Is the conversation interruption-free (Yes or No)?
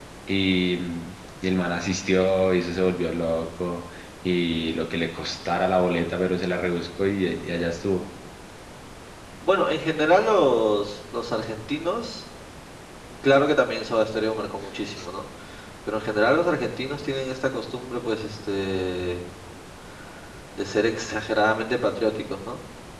Yes